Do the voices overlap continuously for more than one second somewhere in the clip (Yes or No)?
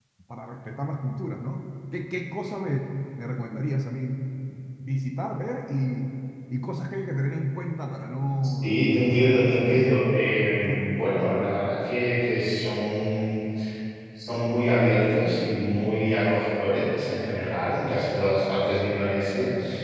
Yes